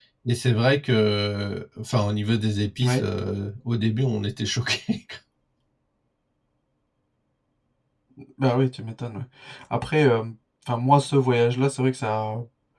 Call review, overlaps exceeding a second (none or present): none